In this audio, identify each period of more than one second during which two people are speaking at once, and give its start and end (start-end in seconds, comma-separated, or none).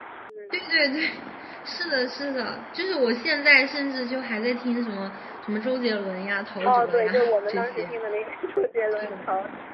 6.7-7.9